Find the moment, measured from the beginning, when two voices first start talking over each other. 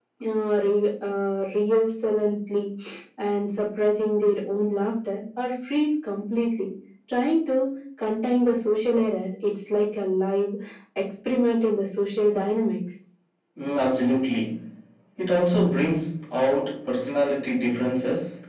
none

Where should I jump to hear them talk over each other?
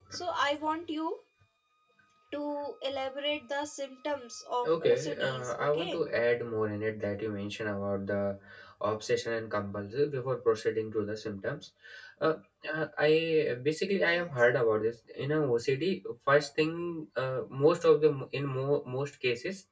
4.6 s

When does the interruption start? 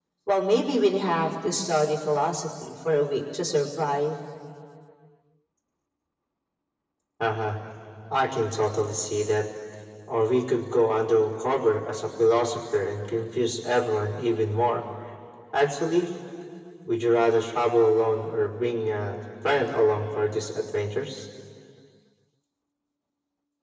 none

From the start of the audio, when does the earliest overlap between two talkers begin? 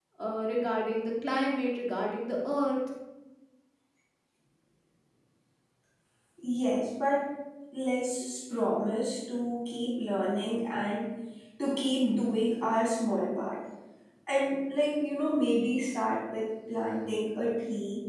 none

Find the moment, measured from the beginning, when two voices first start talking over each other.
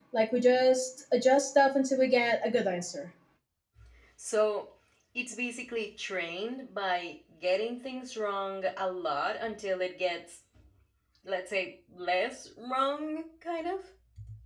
none

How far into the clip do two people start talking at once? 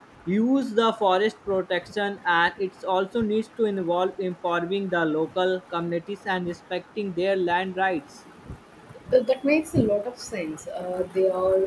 none

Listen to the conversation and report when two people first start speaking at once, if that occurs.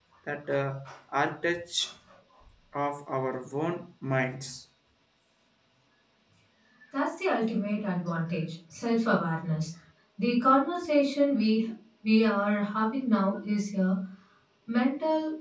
none

